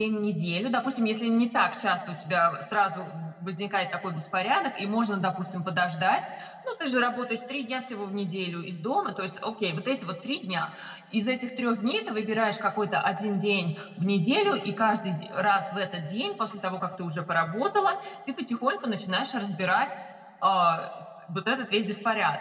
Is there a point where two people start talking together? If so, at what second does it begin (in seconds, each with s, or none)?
none